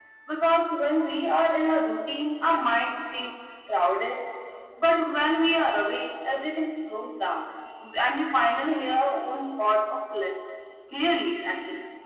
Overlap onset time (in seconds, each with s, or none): none